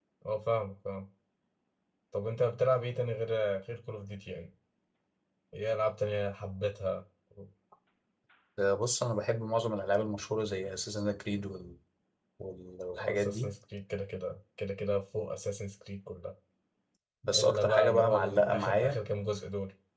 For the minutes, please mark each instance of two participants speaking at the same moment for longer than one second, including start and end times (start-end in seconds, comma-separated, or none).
17.3-19.0